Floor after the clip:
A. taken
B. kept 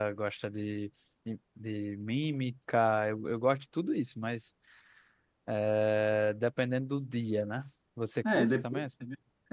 A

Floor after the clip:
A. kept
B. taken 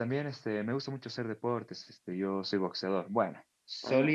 A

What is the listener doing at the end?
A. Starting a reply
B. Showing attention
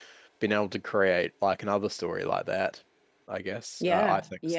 A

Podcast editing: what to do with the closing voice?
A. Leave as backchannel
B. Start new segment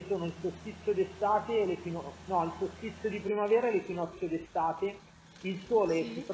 A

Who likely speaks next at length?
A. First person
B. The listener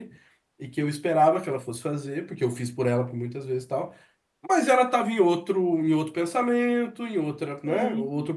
A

